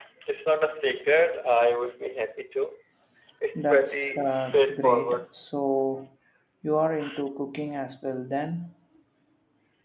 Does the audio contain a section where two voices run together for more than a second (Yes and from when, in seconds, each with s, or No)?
Yes, from 3.6 s